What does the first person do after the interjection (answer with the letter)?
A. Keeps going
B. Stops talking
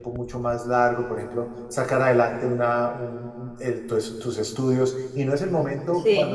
A